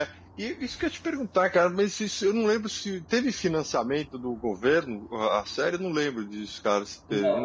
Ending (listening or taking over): taking over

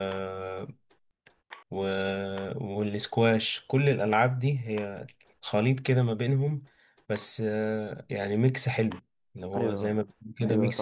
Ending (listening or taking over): taking over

